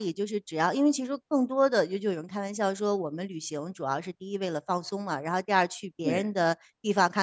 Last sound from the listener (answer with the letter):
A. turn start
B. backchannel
B